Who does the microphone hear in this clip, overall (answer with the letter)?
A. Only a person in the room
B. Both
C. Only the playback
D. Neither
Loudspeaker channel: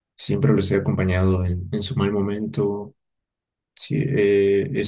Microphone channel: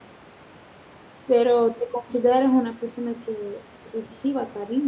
A